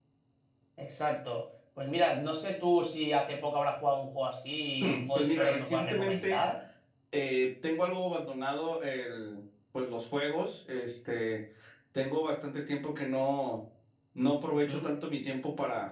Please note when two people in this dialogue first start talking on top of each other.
4.8 s

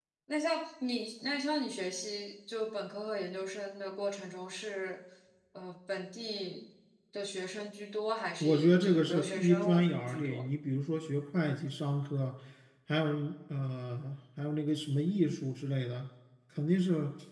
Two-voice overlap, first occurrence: 8.4 s

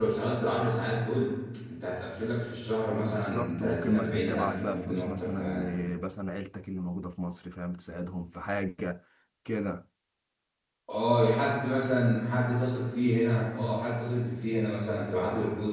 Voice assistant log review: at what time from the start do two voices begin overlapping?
3.0 s

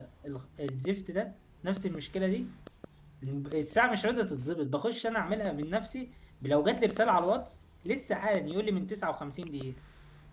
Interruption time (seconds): none

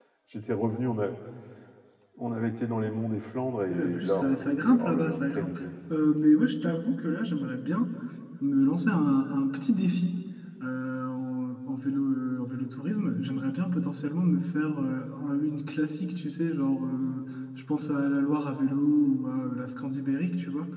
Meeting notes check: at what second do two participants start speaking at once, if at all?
3.7 s

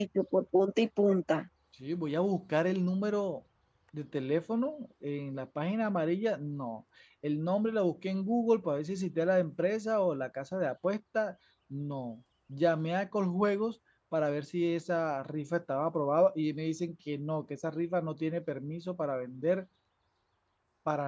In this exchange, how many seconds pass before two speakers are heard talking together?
none

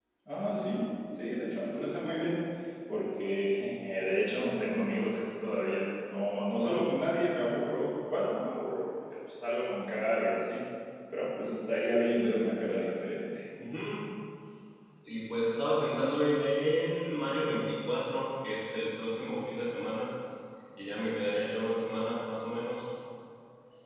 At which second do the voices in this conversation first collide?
none

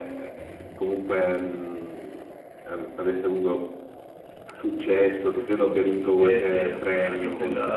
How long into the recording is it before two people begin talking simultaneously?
6.0 s

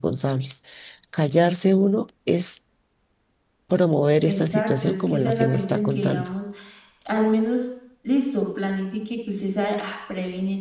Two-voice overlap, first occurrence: 4.3 s

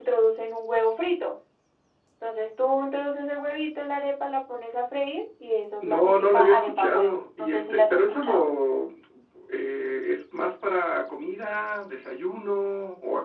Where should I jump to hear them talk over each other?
5.8 s

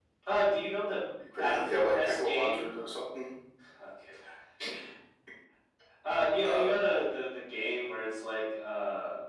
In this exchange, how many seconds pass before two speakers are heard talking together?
1.4 s

